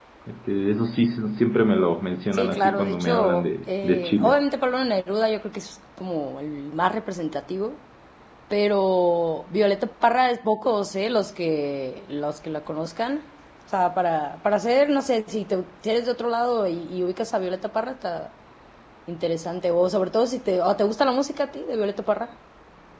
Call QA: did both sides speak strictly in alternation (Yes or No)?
No